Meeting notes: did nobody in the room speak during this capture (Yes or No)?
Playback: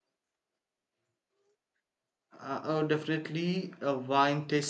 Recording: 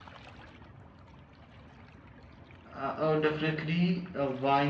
Yes